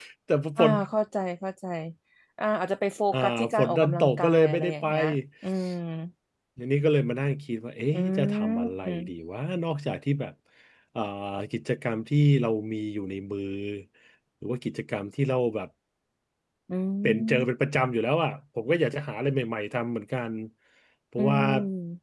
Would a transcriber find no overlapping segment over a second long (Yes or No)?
No